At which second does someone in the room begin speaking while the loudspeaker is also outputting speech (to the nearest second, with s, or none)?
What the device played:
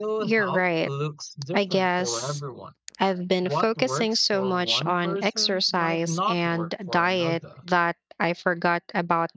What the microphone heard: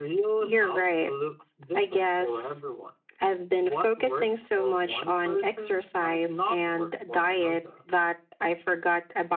none